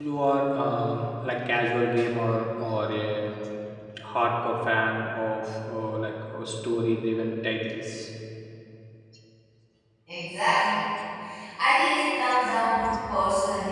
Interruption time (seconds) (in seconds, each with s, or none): none